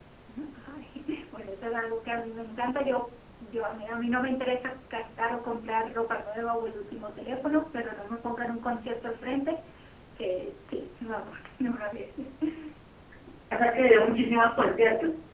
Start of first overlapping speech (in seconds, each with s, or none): none